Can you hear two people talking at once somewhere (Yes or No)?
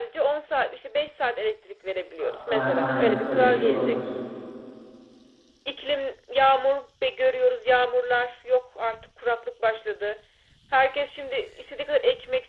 Yes